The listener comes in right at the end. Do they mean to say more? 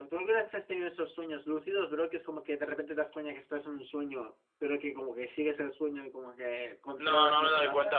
Yes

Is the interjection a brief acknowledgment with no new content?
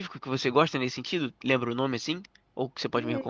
No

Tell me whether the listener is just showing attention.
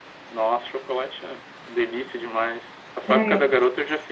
Yes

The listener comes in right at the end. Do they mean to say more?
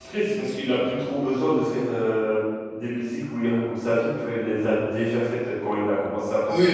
Yes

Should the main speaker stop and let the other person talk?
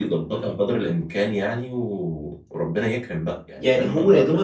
Yes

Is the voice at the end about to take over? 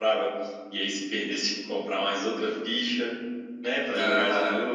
No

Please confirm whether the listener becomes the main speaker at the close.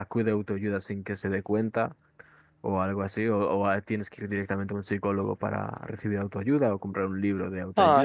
Yes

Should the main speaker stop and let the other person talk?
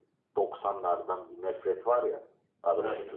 No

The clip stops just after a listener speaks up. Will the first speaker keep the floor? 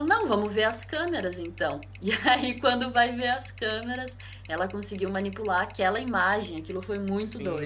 No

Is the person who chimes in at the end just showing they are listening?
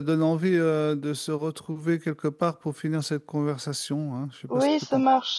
No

